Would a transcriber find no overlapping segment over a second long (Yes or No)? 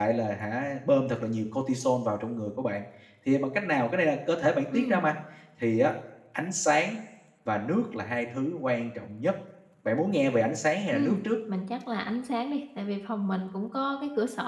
Yes